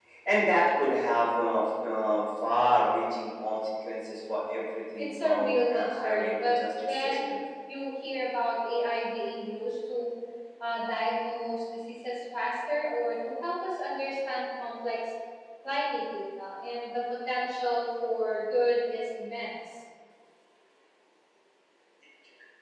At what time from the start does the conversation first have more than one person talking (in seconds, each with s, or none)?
5.0 s